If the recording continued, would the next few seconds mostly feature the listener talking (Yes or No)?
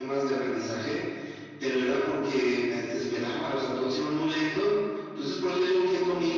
No